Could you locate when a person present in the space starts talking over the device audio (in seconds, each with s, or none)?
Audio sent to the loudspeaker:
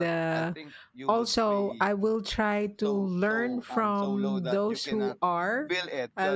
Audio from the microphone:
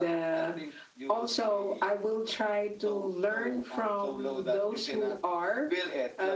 none